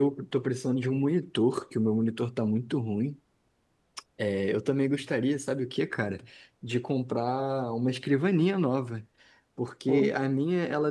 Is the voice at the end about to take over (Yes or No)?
No